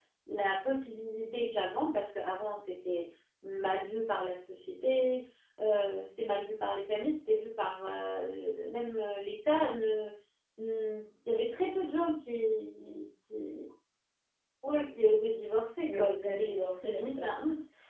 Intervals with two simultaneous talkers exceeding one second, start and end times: 15.9-17.4

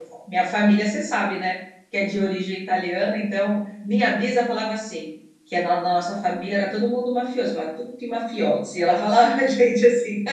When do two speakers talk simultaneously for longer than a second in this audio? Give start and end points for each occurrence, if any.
none

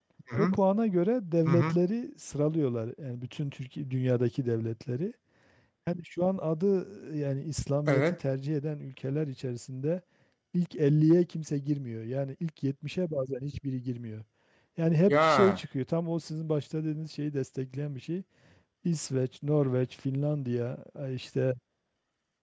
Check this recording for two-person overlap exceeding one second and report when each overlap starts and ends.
none

